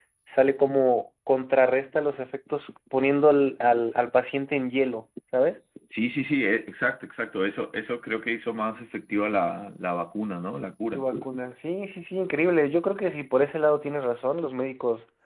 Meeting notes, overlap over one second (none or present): none